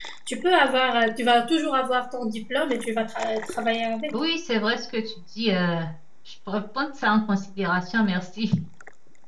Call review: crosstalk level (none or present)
none